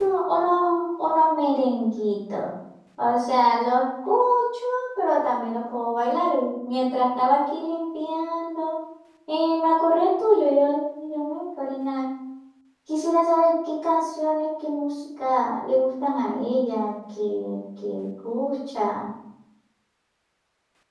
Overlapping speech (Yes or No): No